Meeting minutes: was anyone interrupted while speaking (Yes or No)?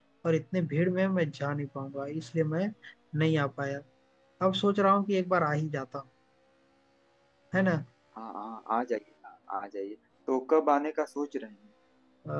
No